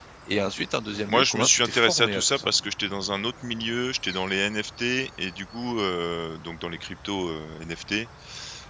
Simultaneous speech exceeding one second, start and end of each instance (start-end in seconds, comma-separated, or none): 1.1-2.5